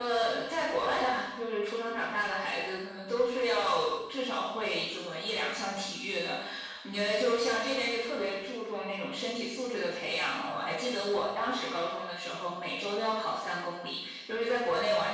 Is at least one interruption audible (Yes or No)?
No